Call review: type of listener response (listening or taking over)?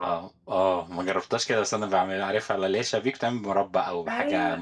taking over